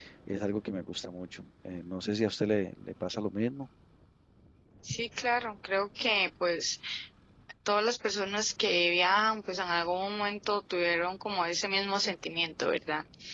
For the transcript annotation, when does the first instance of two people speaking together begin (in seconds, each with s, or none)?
none